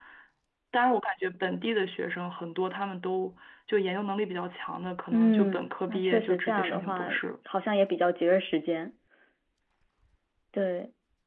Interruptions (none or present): present